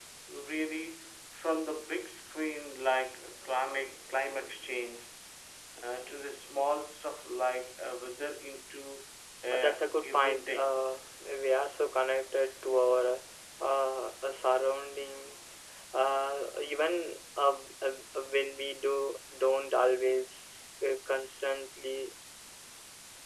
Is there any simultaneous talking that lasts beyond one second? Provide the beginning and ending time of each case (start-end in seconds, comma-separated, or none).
9.5-10.7